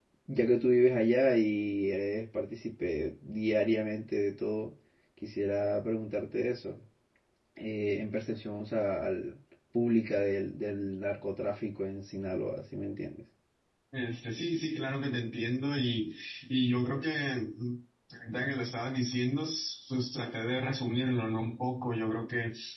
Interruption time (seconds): none

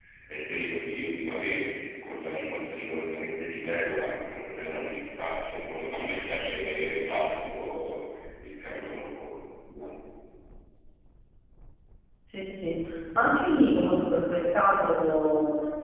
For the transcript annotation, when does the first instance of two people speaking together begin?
none

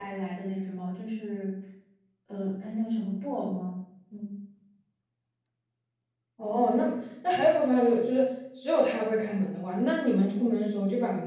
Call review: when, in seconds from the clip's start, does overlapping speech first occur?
none

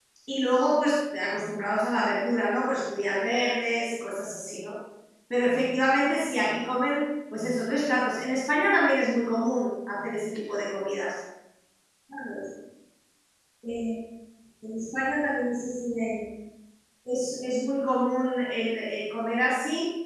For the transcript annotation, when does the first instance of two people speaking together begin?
none

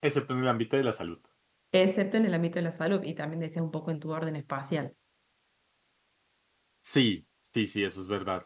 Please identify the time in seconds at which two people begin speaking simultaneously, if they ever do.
none

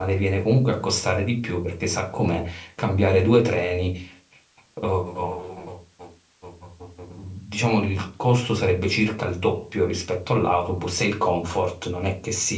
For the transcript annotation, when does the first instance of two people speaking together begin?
none

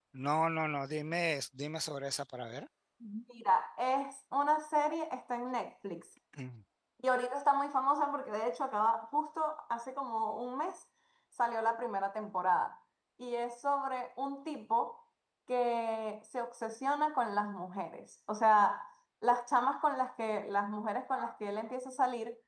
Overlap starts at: none

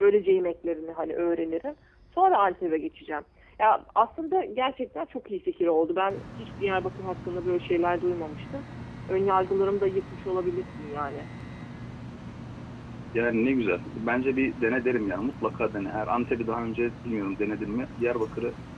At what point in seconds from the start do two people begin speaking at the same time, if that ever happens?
none

